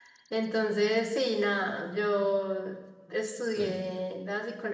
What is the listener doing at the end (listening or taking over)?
listening